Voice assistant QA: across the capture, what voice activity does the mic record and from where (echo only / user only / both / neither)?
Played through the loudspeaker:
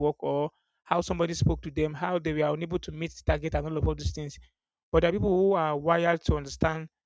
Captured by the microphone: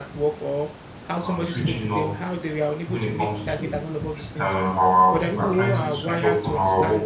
both